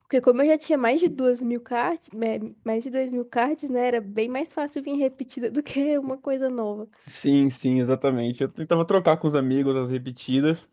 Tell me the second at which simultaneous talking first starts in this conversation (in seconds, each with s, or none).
none